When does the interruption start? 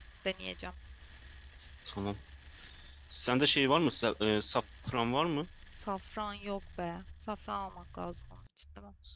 none

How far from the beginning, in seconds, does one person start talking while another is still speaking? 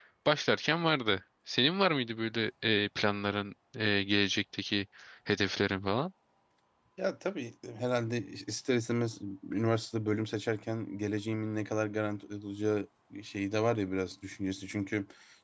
none

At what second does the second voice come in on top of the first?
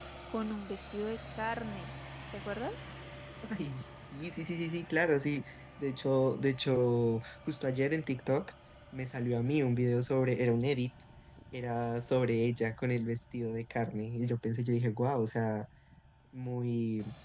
none

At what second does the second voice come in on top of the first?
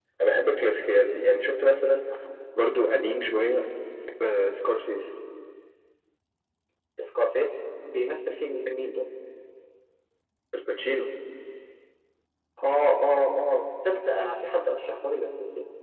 none

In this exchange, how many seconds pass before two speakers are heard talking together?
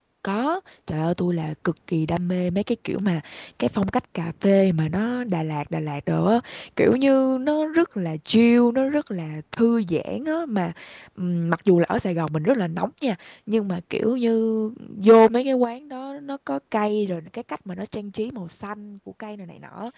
none

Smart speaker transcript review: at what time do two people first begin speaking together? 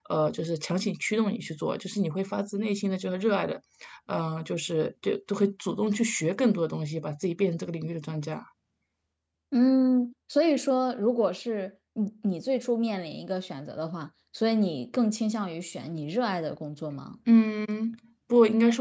none

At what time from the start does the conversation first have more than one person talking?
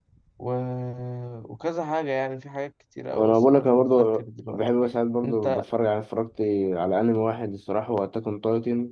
3.1 s

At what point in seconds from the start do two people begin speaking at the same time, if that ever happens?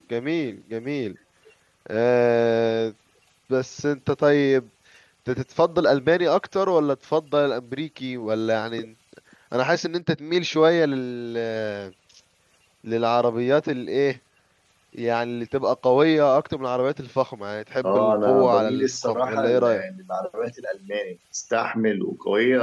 17.8 s

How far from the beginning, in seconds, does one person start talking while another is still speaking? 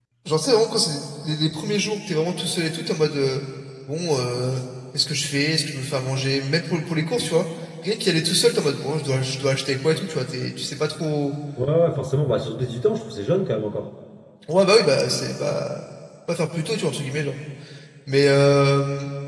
none

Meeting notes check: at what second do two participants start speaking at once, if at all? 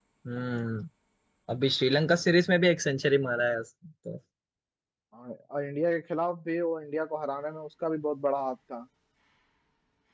none

